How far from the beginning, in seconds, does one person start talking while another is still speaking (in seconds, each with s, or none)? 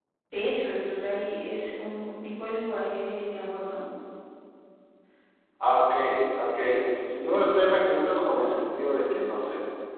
none